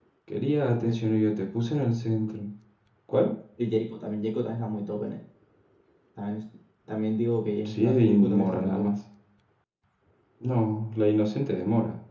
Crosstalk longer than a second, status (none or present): present